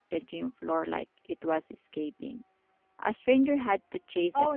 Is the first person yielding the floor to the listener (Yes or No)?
Yes